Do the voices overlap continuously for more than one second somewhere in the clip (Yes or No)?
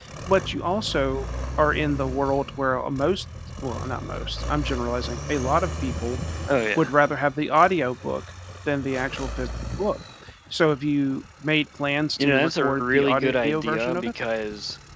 Yes